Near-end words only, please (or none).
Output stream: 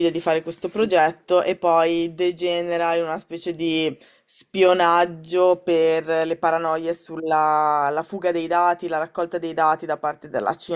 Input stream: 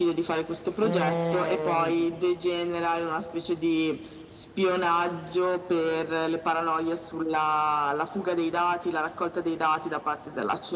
eh,